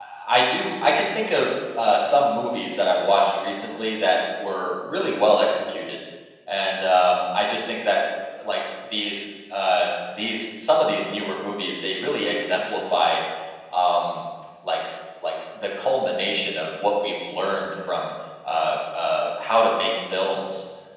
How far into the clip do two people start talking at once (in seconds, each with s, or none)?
none